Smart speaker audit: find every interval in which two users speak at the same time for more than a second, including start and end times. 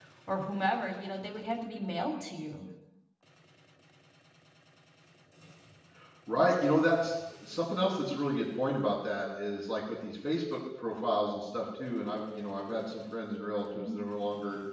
none

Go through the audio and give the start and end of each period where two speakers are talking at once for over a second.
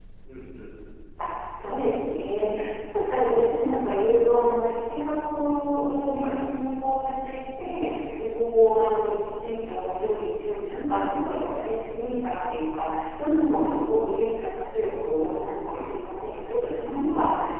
none

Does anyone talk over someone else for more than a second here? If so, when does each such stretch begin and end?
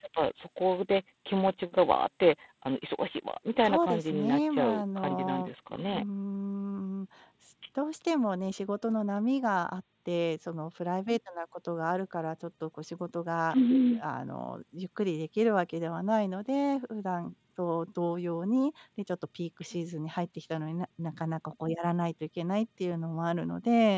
3.6-6.0

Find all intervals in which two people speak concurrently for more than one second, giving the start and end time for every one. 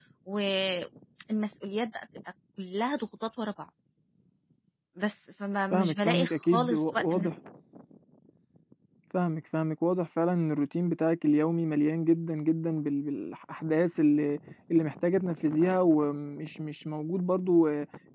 5.7-7.3

